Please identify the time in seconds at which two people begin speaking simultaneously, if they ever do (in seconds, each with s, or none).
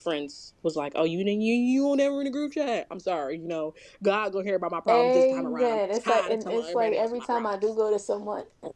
4.9 s